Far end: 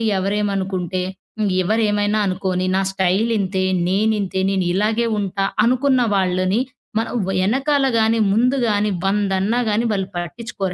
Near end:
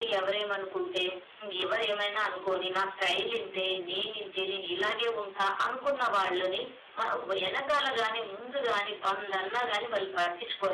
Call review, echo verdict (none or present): present